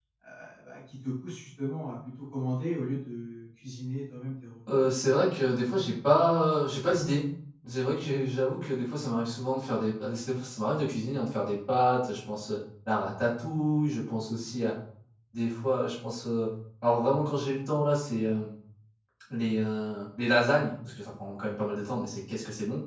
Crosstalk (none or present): none